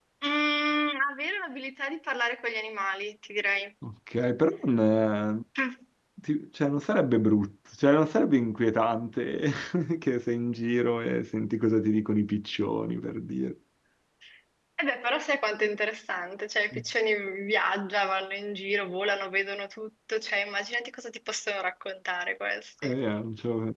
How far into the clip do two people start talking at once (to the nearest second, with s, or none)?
none